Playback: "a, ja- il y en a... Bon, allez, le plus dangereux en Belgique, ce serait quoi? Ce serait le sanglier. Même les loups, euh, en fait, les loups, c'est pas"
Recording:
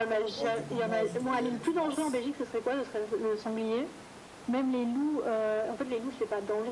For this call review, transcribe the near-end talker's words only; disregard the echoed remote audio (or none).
Bah, du coup, moi, je dois y aller, je pense.